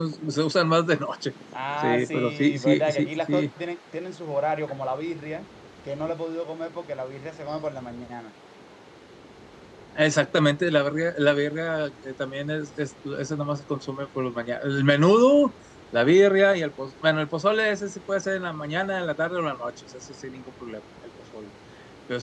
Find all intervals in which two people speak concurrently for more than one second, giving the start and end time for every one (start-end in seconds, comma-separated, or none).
1.8-3.5